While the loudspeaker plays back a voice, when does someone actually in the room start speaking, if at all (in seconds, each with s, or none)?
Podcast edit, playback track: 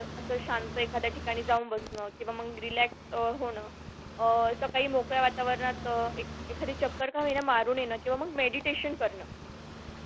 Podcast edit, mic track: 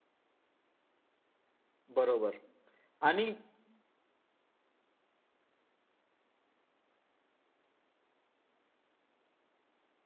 2.0 s